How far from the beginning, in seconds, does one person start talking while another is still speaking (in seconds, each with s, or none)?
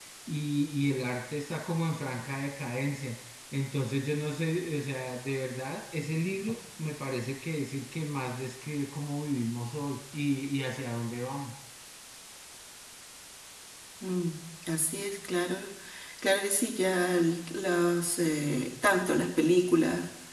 none